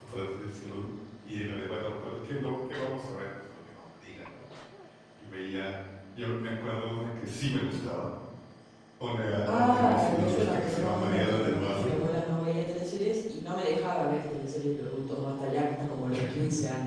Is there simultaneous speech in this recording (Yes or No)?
Yes